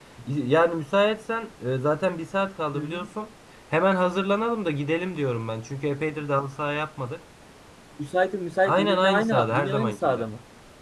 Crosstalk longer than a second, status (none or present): present